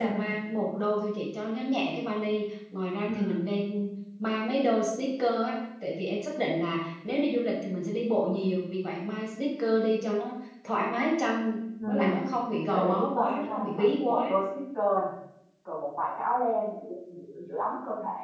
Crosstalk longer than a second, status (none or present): present